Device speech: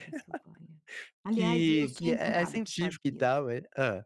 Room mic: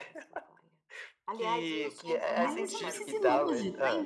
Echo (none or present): present